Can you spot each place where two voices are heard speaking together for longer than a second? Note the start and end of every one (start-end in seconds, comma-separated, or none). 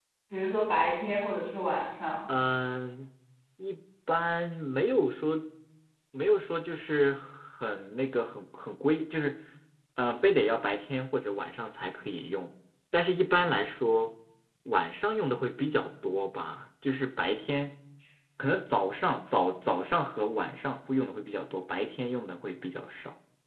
none